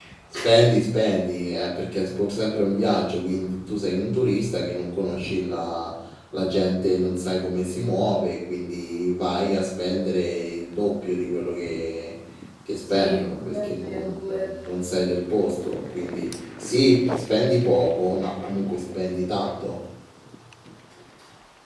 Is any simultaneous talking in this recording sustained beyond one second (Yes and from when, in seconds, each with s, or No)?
Yes, from 12.9 s